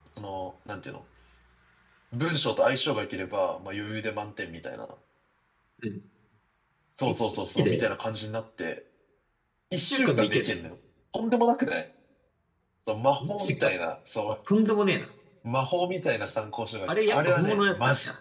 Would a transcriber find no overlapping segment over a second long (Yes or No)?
No